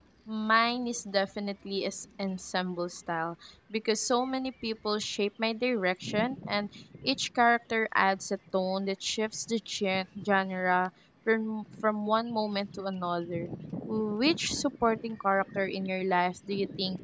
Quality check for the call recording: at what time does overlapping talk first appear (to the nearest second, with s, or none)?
none